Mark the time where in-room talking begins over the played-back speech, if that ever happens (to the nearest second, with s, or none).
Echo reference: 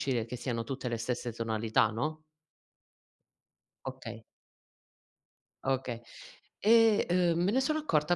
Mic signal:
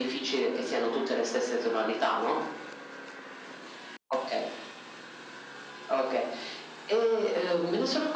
none